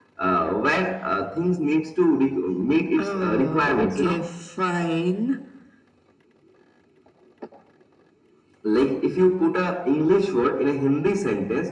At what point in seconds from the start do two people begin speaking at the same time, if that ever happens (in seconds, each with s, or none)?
3.0 s